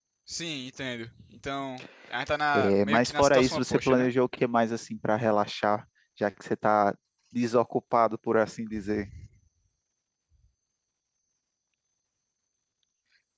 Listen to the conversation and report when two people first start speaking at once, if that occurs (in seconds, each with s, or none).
2.5 s